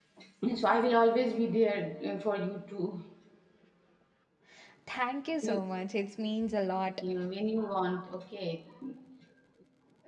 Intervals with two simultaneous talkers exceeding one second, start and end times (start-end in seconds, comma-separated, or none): none